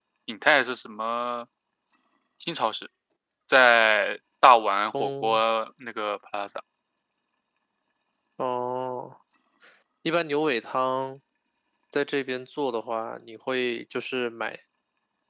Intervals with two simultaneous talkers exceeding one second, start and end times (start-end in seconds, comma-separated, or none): none